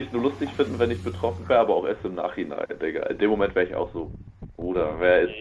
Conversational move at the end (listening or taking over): taking over